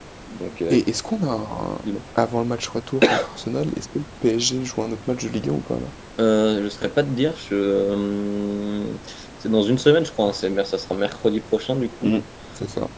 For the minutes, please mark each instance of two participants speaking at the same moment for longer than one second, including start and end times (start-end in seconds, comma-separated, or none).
none